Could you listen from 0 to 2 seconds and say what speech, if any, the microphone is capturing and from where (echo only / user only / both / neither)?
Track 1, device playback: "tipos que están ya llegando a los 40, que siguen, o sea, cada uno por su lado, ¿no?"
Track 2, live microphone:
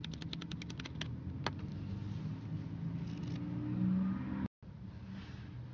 neither